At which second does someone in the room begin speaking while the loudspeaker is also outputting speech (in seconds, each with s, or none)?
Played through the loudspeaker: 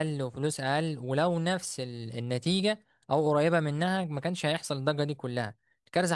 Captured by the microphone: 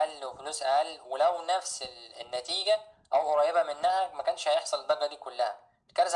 none